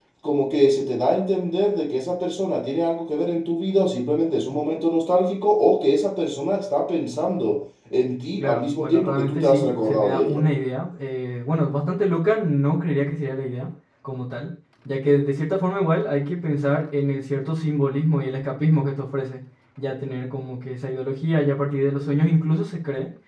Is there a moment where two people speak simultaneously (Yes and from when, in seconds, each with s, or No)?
Yes, from 8.4 s